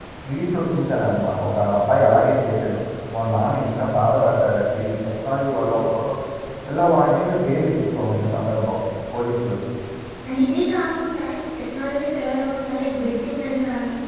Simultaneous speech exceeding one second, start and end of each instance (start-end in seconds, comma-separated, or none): none